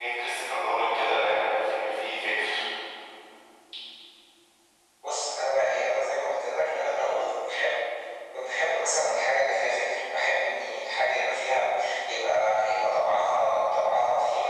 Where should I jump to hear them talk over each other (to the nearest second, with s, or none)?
none